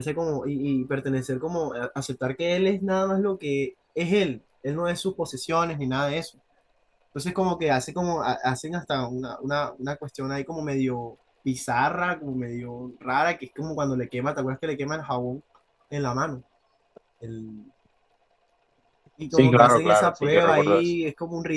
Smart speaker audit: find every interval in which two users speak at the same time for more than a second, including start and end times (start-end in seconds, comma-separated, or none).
19.3-20.8